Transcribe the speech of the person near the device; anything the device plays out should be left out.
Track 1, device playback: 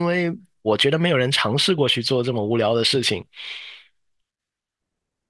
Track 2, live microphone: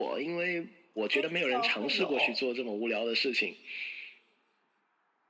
飞机上会有，

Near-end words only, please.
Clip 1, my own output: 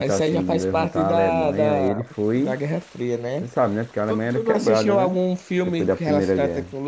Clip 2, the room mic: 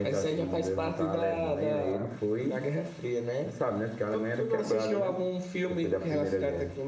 none

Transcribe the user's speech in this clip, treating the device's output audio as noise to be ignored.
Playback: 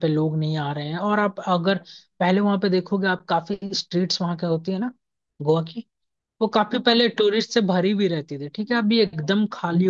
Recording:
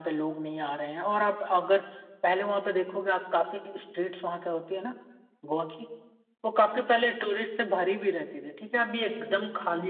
none

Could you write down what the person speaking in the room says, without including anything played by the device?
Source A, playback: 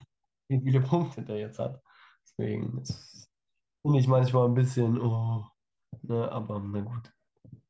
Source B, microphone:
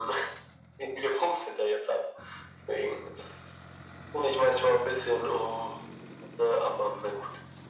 none

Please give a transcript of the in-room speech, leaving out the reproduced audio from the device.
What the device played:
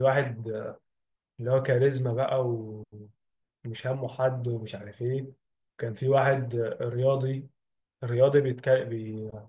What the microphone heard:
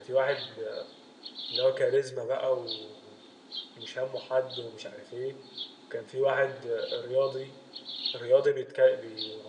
none

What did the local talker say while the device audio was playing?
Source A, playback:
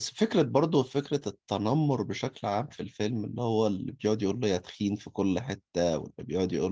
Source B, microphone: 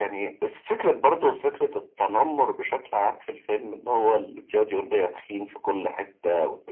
none

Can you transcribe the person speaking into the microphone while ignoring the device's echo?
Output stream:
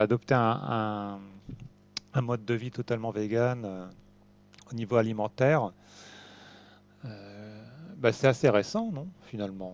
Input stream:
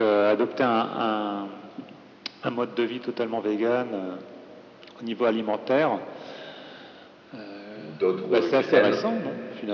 ou d'autres euh, graines,

